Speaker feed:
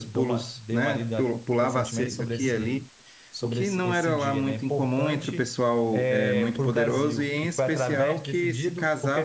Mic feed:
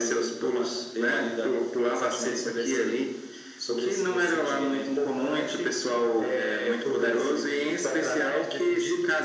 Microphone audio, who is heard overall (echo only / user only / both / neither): echo only